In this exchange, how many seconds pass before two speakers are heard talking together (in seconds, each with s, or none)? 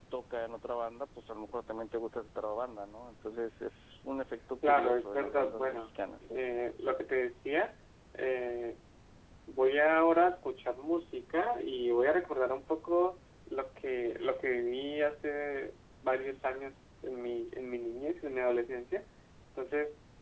4.6 s